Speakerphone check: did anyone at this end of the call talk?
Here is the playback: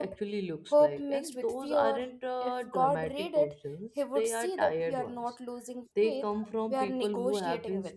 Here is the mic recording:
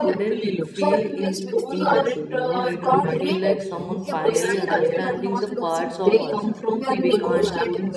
Yes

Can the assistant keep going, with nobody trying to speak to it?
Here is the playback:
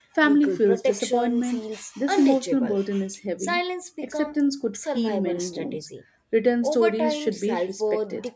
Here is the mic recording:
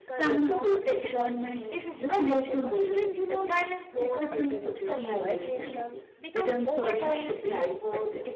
No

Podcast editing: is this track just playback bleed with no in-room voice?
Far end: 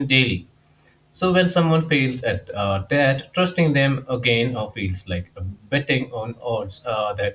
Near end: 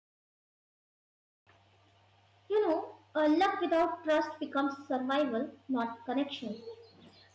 No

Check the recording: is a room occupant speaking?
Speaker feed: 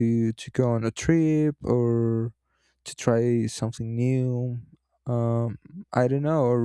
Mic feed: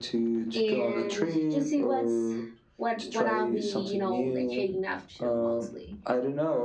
Yes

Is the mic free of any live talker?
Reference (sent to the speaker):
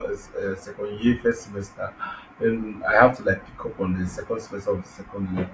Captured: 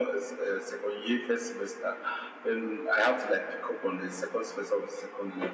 Yes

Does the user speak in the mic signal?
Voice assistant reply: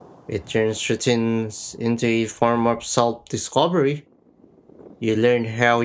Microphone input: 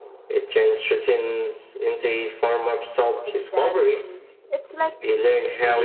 Yes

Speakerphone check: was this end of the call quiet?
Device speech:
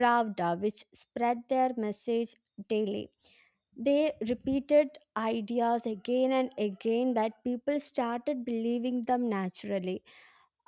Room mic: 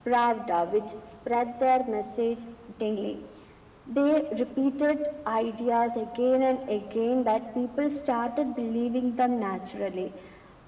Yes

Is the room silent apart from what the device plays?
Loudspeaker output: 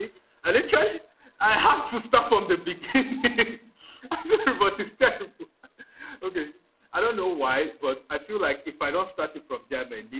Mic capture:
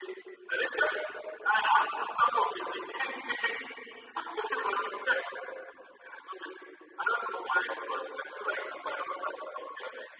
Yes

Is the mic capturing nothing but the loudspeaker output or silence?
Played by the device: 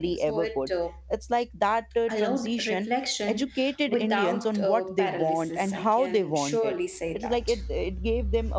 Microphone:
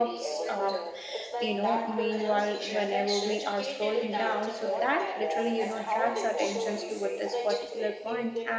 No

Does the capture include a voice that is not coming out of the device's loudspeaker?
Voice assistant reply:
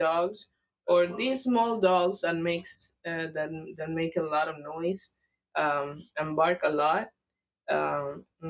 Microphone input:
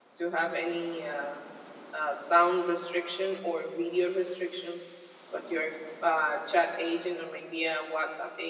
Yes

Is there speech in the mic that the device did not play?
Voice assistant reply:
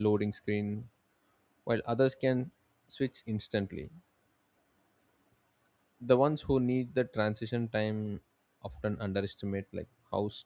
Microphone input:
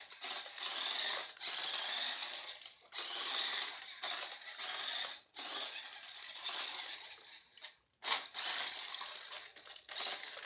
No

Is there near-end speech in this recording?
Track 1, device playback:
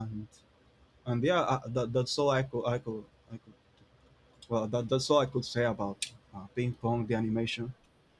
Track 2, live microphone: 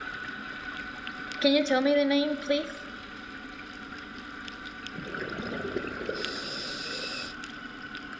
Yes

